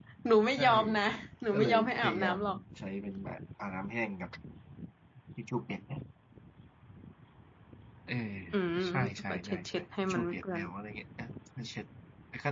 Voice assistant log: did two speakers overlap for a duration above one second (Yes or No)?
Yes